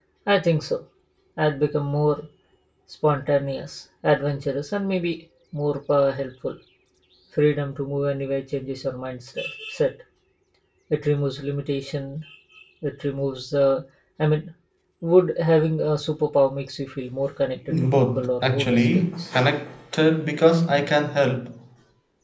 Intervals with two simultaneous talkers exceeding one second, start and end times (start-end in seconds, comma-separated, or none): 18.0-19.3